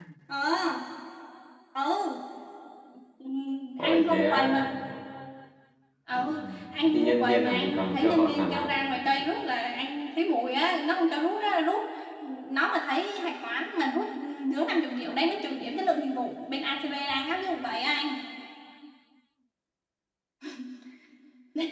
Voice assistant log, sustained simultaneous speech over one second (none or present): present